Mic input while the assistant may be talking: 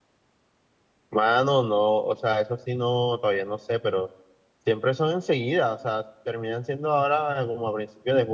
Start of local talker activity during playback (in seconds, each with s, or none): 1.1 s